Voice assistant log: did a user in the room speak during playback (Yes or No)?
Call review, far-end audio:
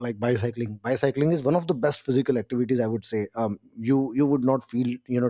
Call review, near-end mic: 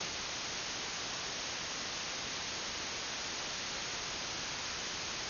No